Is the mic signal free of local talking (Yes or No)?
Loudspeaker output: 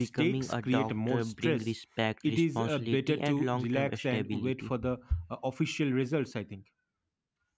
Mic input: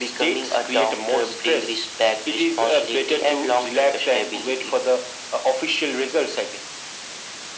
Yes